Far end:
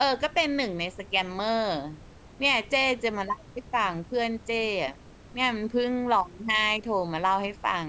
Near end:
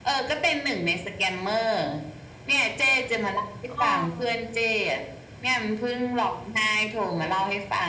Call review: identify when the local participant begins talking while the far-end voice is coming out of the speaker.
3.7 s

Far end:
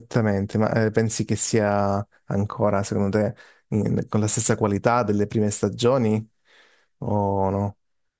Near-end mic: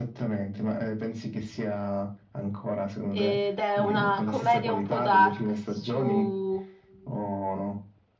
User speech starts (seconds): 3.1 s

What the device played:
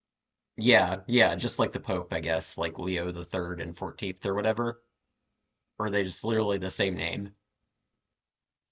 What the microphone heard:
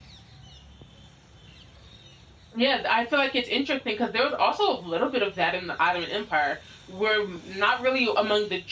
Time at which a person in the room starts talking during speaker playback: 2.6 s

